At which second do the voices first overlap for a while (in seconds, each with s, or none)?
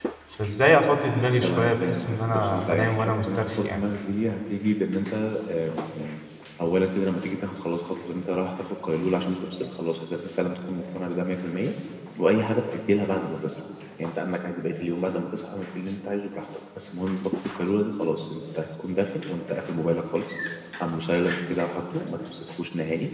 1.4 s